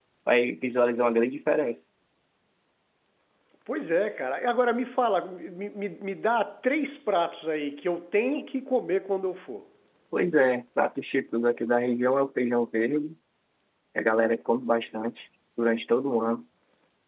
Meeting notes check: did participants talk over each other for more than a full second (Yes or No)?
No